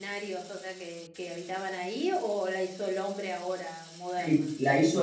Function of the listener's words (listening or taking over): taking over